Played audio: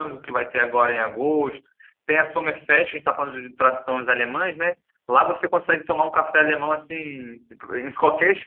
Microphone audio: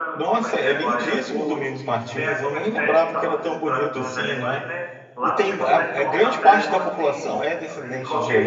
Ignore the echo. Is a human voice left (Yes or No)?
Yes